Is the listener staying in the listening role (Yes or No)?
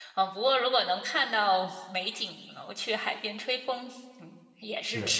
No